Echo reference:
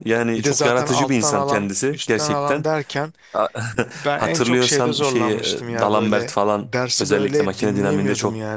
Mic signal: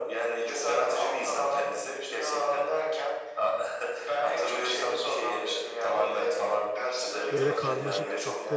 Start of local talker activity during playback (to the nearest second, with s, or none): 7 s